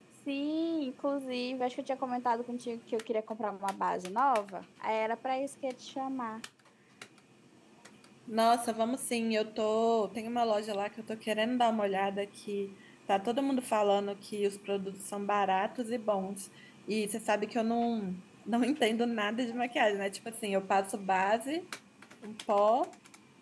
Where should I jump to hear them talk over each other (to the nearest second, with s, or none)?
none